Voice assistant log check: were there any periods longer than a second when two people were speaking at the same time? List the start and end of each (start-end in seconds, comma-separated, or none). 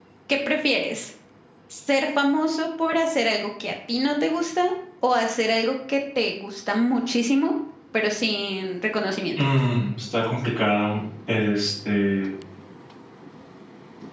none